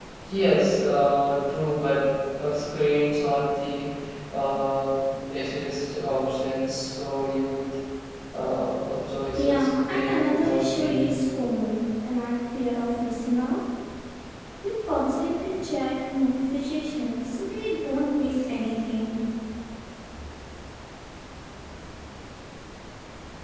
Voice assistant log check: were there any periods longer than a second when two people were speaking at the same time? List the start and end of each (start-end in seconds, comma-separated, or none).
9.3-11.1